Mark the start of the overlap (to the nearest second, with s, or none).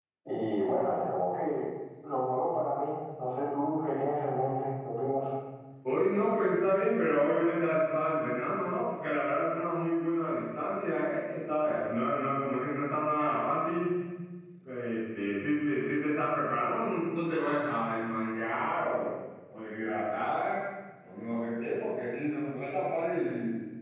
none